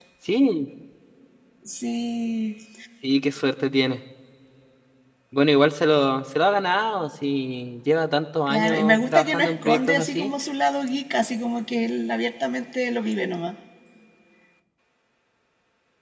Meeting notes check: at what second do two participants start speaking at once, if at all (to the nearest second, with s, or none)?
8 s